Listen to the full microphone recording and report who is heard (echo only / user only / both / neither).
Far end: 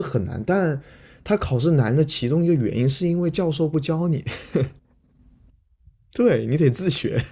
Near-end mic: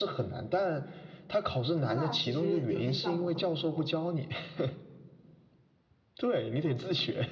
both